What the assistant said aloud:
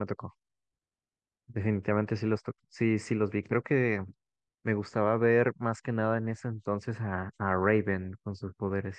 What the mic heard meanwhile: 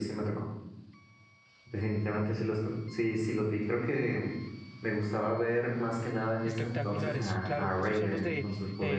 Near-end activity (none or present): present